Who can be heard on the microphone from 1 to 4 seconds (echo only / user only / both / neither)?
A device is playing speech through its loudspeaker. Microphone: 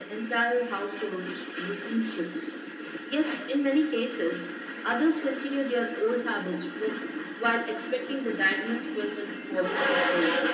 echo only